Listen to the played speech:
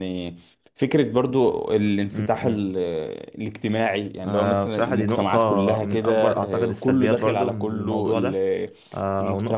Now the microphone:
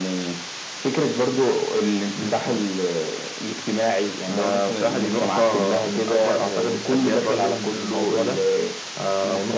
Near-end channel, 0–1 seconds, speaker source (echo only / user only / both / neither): echo only